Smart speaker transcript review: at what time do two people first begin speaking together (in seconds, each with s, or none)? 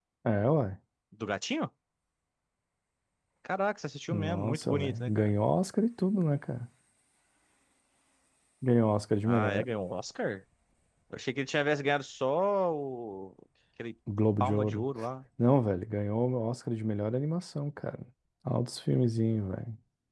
4.1 s